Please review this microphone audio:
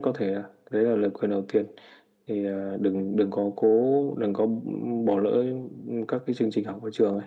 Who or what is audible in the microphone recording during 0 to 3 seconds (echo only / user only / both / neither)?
echo only